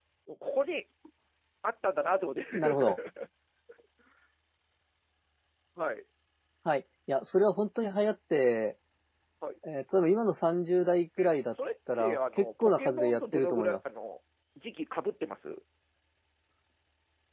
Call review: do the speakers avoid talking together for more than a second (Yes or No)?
No